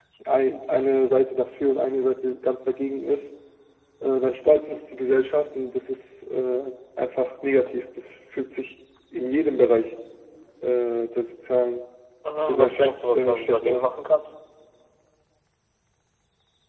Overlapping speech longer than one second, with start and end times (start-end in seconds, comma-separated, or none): 12.5-13.9